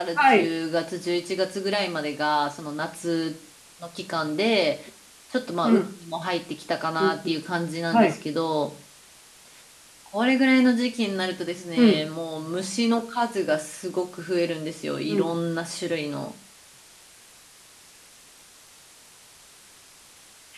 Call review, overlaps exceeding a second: none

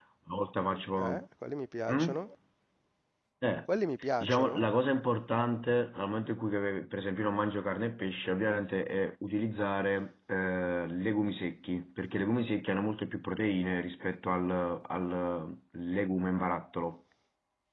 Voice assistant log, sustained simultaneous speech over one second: none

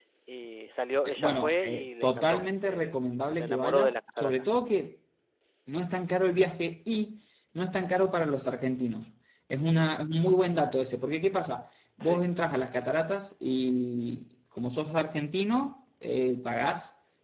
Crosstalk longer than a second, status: present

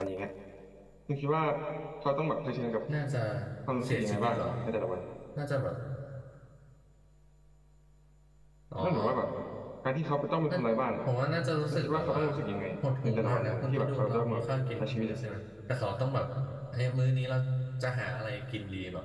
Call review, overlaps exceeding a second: present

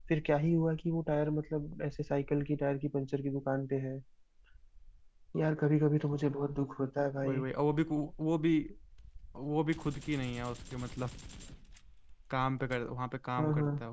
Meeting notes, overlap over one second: none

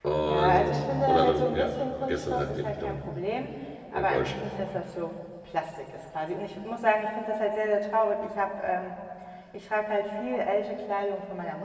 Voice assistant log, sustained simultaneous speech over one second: present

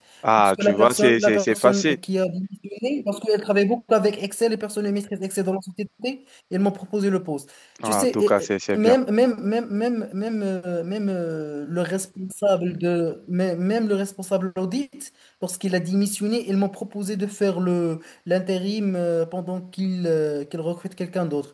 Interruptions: present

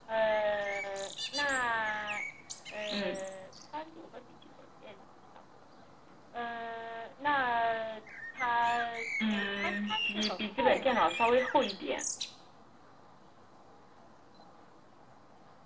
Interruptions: present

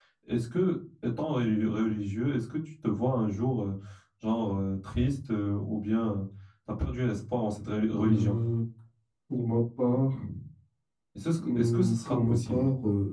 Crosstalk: present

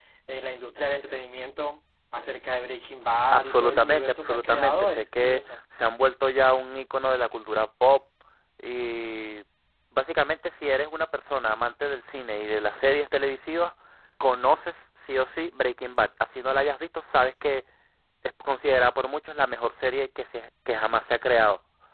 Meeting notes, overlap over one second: present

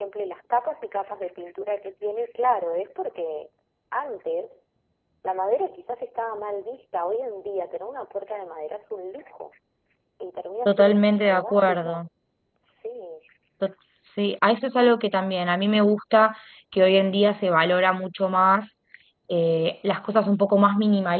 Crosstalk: present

